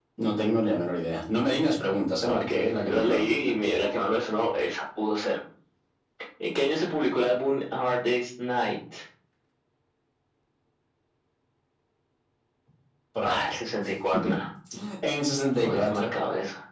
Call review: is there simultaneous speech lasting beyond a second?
Yes, from 2.2 s

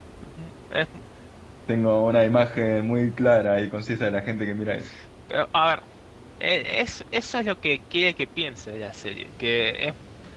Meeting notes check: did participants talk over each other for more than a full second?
No

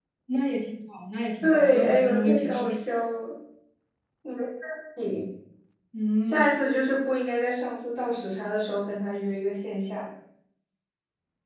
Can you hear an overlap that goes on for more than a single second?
Yes, from 1.4 s

